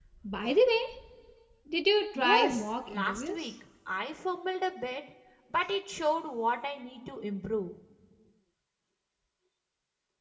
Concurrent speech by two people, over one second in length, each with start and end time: 2.1-3.4

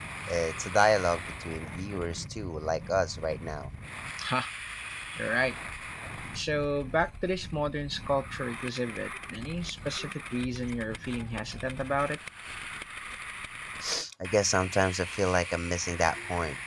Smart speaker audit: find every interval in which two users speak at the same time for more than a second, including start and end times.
none

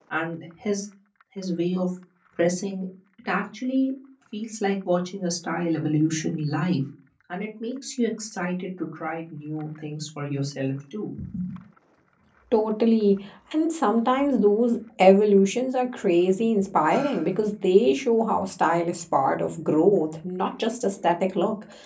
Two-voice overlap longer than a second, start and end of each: none

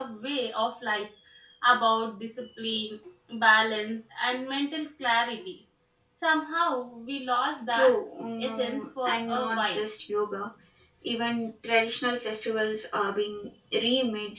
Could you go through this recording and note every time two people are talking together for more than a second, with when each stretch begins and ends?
8.5-9.8

